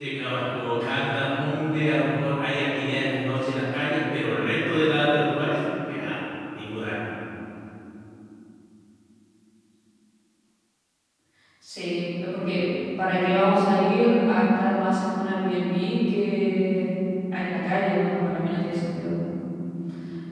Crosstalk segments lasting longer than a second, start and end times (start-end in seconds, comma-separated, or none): none